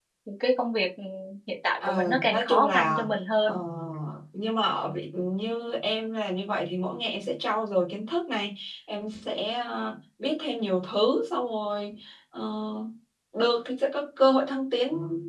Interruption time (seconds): 2 s

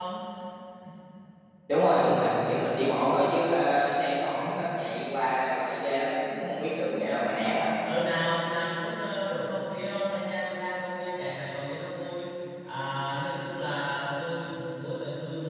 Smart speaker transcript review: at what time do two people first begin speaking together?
none

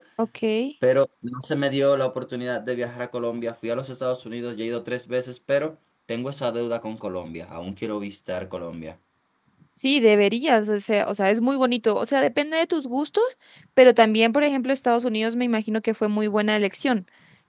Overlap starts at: none

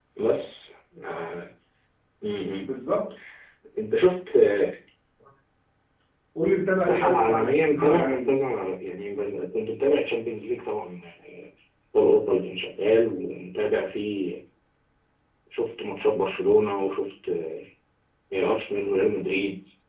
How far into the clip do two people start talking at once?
7 s

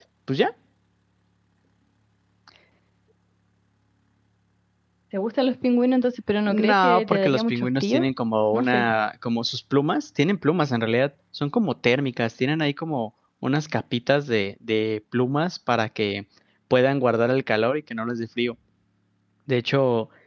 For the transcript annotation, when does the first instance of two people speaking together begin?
6 s

